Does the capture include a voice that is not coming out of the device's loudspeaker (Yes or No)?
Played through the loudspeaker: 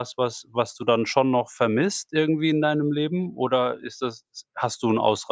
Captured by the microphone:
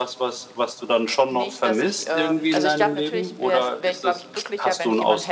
Yes